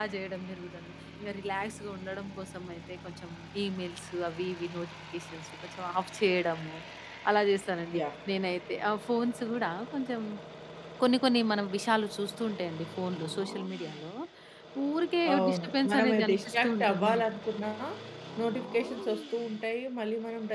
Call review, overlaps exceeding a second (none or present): present